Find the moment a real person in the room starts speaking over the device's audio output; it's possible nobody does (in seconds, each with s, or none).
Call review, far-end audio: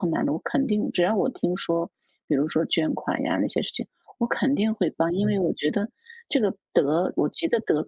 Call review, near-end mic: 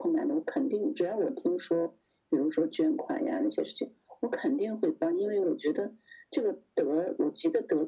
none